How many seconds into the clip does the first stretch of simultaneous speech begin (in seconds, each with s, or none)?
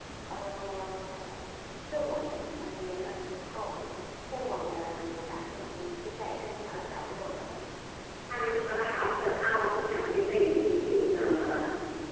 none